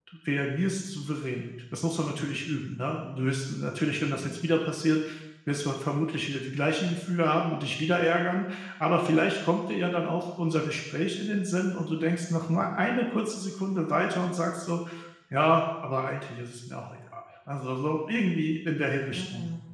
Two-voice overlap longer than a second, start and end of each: none

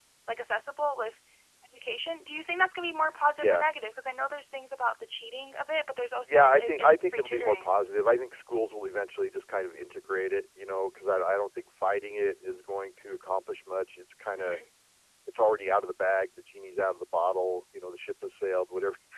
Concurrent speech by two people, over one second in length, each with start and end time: 6.3-7.7

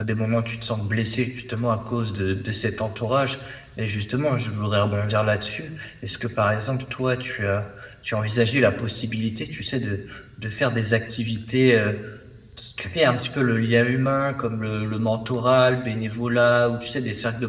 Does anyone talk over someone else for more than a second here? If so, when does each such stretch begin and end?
none

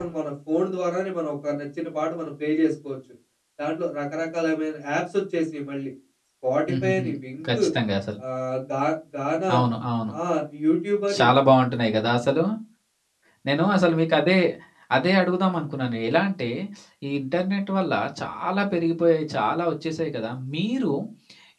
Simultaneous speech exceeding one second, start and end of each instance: none

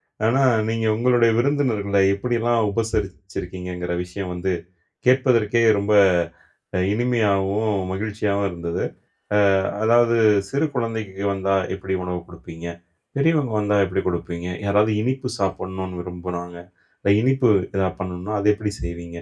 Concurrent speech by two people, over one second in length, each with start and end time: none

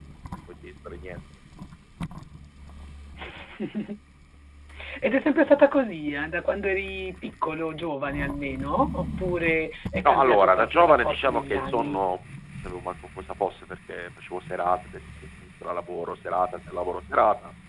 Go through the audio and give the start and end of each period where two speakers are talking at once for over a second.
10.1-12.0

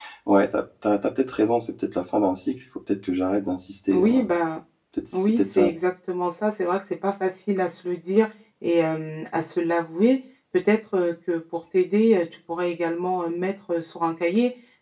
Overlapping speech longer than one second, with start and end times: none

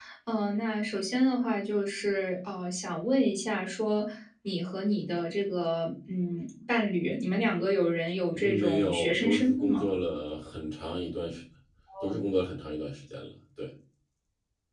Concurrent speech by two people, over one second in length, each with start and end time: 8.3-9.9

